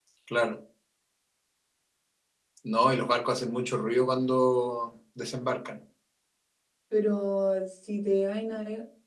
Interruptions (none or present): none